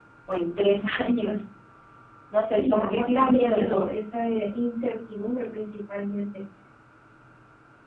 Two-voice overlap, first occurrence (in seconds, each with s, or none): 2.5 s